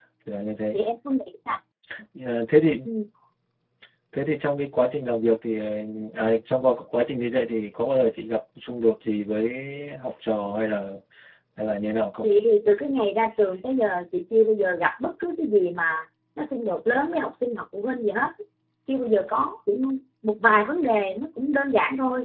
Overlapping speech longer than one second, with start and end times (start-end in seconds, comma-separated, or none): none